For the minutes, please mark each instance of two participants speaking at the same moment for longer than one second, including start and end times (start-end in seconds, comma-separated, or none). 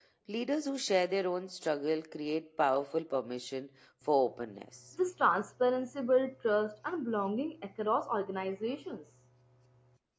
none